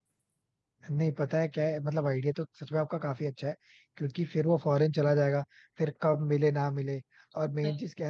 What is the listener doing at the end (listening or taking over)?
listening